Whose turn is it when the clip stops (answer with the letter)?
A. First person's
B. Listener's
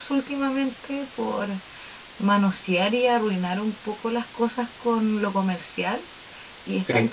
A